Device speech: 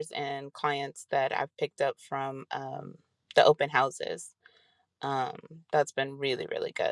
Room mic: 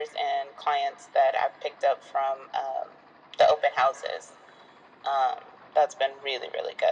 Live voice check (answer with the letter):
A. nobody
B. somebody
A